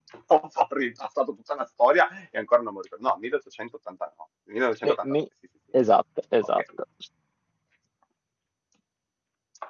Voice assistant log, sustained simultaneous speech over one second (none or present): none